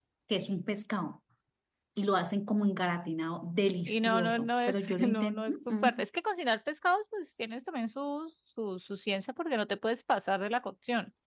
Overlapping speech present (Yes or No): Yes